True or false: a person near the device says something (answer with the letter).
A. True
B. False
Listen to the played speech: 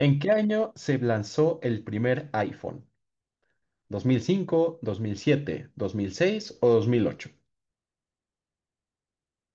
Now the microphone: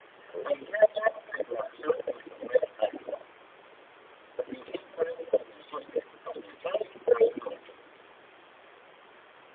A